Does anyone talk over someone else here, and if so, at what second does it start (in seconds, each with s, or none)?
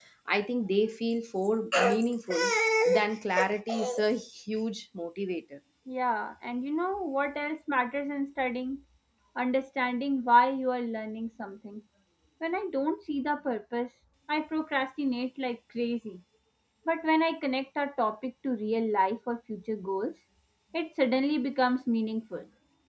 none